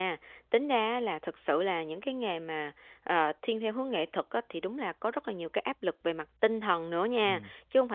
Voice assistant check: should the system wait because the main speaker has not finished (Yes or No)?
Yes